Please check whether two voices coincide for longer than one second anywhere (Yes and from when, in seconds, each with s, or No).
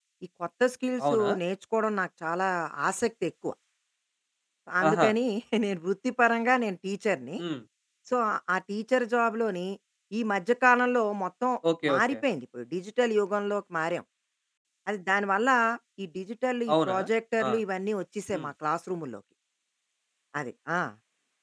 No